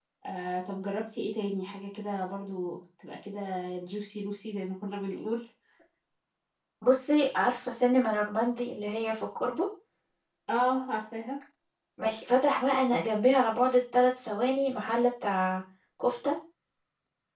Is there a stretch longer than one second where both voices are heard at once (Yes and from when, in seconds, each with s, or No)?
No